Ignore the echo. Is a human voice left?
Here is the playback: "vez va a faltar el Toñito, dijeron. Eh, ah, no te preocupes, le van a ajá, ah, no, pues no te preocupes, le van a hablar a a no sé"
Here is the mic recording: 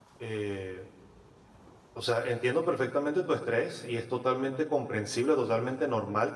Yes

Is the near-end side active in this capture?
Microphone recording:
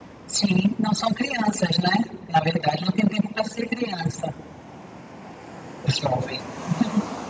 No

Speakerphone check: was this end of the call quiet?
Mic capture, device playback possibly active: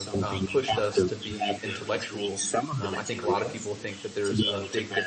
No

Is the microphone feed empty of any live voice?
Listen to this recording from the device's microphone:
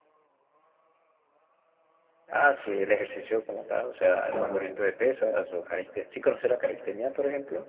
No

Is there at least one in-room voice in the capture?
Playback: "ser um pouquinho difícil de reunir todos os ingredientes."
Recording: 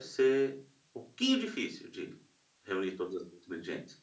No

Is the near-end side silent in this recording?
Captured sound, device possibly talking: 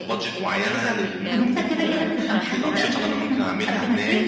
No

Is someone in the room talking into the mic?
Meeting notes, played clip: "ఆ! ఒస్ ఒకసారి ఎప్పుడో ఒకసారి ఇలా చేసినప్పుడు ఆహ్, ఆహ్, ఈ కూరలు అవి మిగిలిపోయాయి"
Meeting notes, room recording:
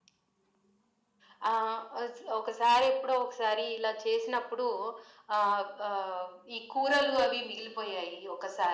No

